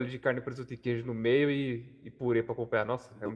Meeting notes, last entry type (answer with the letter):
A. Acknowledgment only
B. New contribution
B